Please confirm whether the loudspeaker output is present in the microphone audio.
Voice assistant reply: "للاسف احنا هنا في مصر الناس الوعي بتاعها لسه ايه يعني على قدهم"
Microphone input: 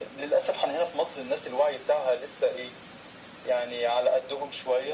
Yes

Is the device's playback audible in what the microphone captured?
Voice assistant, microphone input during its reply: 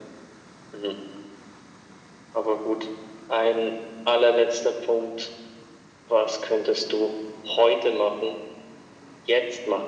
Yes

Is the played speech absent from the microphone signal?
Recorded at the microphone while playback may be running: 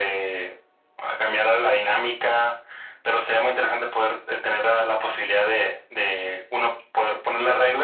No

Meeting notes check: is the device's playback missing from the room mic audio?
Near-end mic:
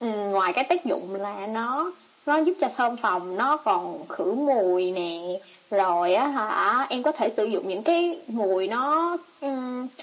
No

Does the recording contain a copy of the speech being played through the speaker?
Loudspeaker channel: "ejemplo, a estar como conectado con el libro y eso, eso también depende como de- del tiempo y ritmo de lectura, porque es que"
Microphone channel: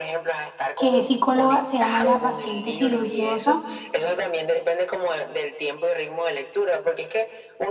Yes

